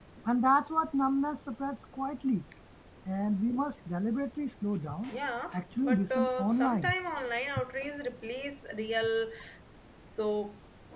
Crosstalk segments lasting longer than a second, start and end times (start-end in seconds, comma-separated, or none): 5.5-6.9